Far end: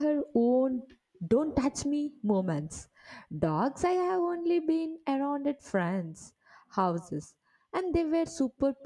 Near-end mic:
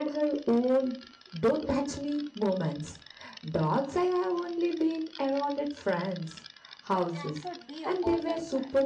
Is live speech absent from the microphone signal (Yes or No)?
No